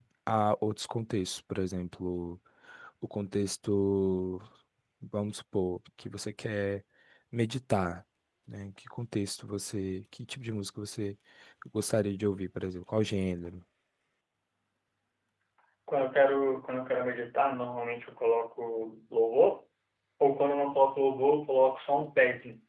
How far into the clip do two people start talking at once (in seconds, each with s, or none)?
none